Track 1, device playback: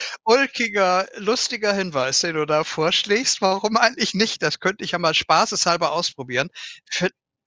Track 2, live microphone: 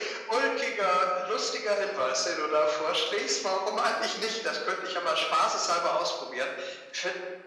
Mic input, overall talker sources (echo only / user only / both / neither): echo only